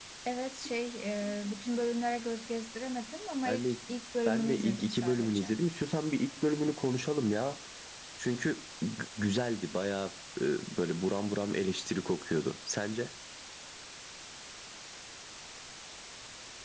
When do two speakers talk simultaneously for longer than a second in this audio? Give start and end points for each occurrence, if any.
4.2-5.5

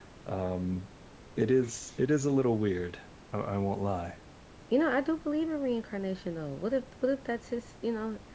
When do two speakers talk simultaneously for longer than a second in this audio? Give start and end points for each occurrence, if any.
none

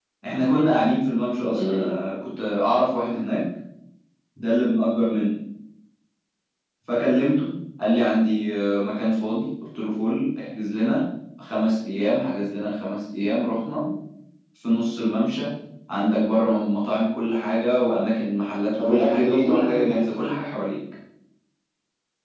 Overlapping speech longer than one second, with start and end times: 18.8-20.1

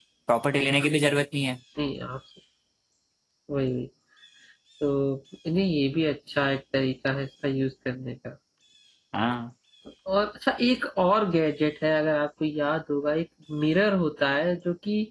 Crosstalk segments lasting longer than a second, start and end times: none

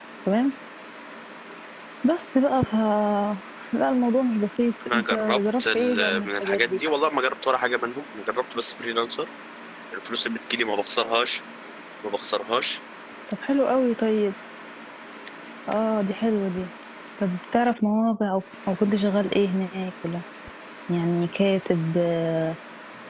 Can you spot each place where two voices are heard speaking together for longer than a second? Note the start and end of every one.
4.9-6.8

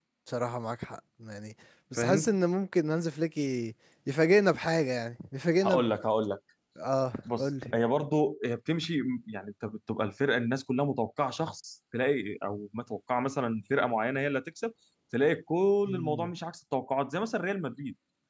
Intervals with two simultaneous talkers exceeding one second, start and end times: none

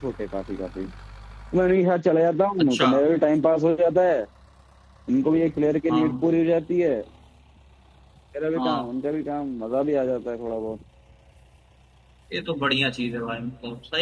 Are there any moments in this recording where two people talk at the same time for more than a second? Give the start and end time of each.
none

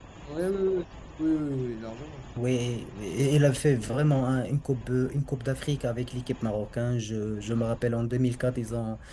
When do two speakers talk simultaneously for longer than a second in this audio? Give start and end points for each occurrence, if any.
none

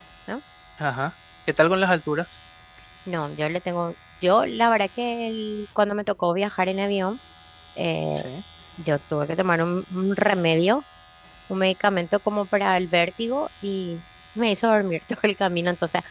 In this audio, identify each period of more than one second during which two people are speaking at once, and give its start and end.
none

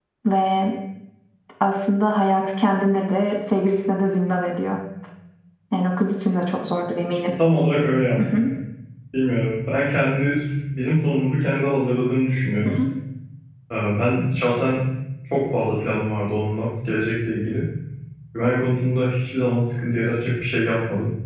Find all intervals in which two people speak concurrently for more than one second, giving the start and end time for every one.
none

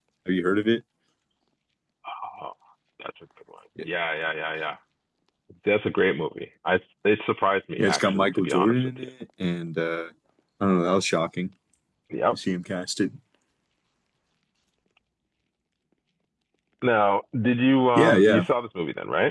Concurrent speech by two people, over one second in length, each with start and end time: 7.8-9.1

